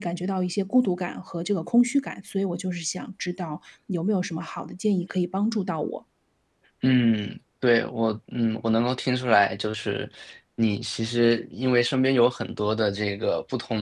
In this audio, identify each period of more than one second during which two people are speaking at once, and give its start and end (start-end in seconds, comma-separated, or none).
none